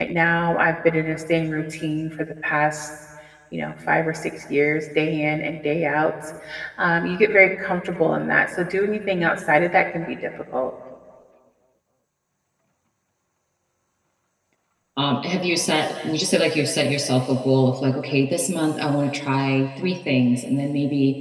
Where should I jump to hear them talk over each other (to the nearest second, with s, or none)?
none